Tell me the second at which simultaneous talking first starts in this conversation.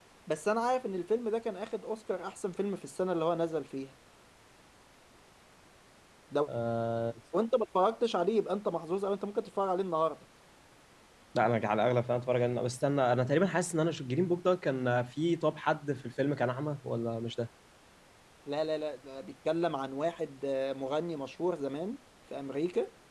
none

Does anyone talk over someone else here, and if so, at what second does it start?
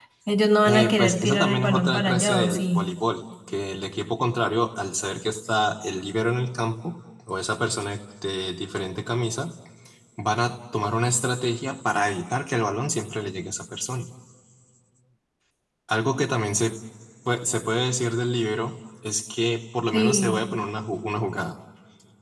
0.6 s

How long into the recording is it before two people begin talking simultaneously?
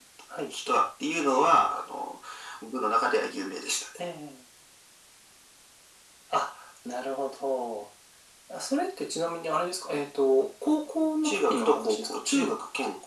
11.2 s

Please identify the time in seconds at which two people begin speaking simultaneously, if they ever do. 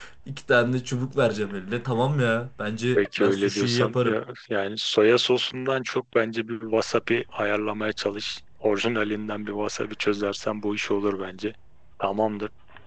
3.0 s

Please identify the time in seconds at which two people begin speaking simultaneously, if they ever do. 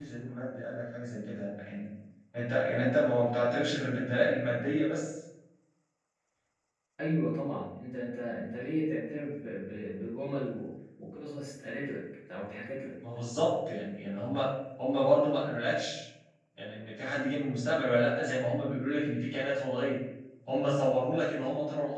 none

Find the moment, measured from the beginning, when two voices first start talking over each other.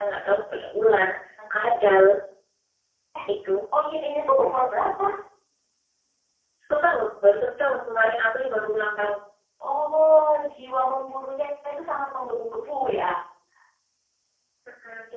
none

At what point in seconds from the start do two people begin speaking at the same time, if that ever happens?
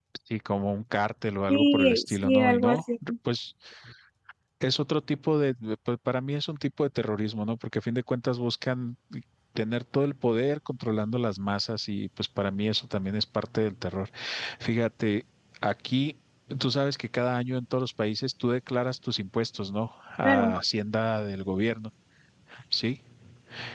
1.5 s

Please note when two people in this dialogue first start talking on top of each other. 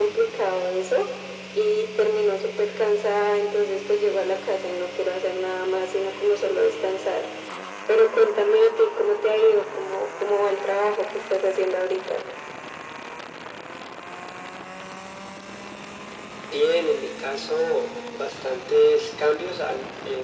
none

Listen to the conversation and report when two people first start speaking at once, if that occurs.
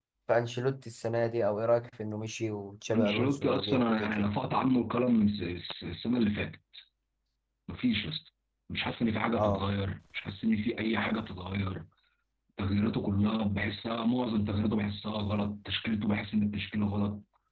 2.9 s

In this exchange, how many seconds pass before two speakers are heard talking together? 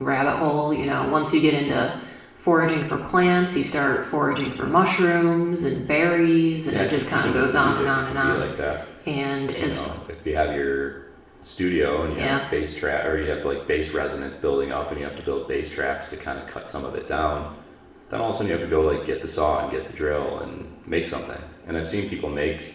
6.7 s

